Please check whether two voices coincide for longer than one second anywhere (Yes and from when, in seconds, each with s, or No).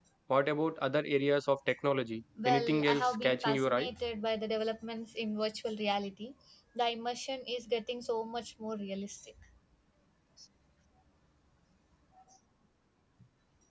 Yes, from 2.4 s